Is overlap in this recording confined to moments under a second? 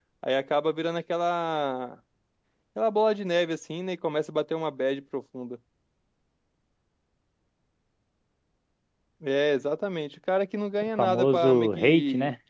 No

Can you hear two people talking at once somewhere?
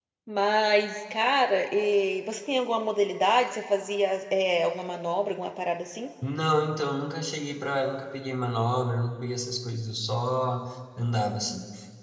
No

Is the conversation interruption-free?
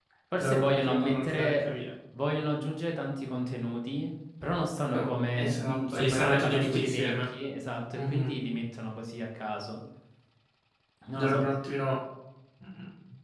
No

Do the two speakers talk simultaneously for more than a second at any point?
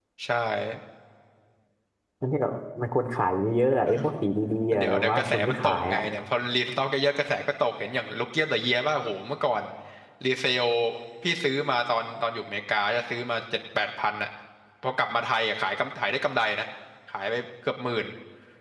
Yes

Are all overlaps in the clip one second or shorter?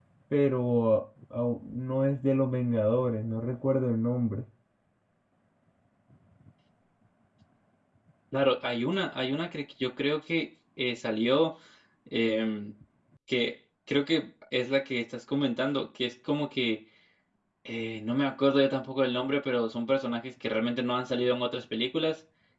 Yes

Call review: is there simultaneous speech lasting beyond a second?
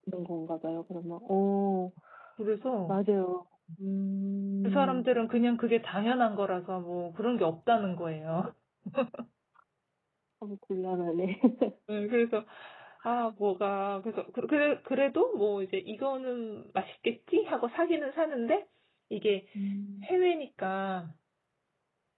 No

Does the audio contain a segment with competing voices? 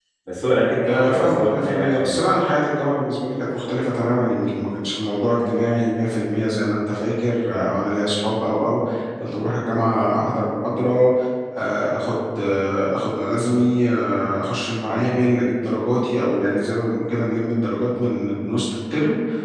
Yes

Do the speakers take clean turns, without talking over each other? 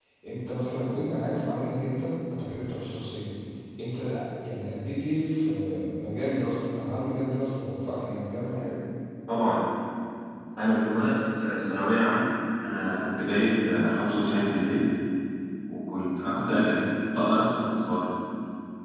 Yes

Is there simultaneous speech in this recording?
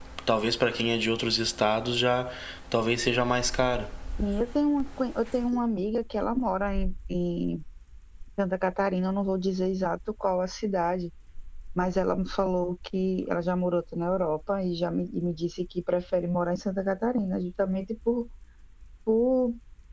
No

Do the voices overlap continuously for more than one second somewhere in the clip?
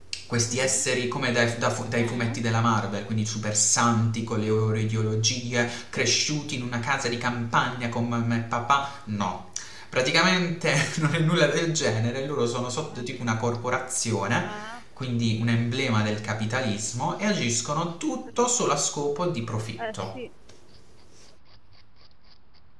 No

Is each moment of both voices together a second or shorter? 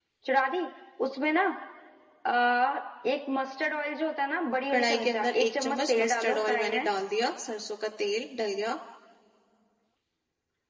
No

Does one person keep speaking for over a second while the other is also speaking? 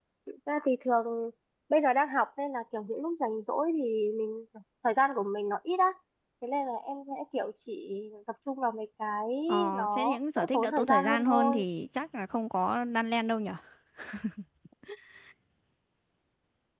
Yes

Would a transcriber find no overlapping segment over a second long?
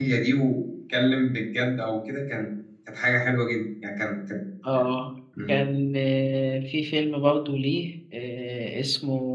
Yes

